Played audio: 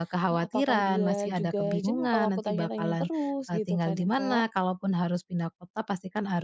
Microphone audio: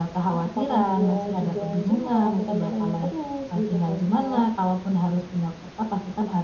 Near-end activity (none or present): none